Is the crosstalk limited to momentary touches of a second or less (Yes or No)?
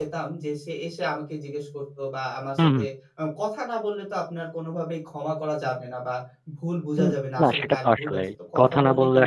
No